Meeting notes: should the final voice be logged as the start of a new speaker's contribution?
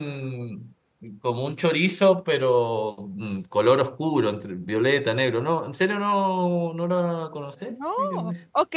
Yes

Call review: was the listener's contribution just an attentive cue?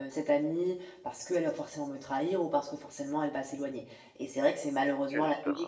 Yes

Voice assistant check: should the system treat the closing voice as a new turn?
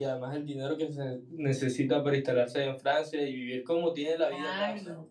Yes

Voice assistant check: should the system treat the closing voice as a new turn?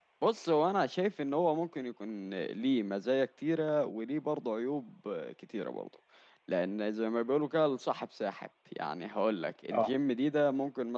No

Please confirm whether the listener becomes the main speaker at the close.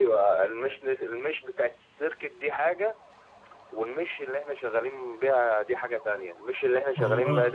No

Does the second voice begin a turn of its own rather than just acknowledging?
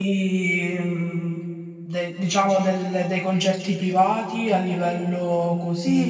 Yes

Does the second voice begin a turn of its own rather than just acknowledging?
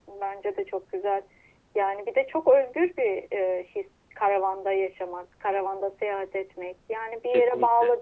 No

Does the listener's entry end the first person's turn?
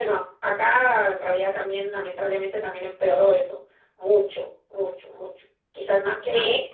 No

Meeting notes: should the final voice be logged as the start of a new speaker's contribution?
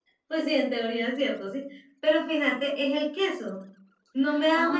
No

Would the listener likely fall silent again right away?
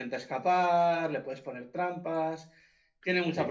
Yes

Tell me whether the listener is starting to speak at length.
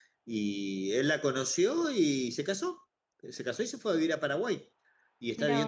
No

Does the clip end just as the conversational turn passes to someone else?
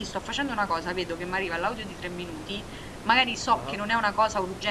No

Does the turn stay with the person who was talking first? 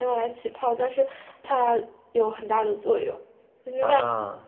Yes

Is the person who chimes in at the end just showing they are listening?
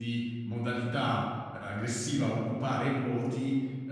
Yes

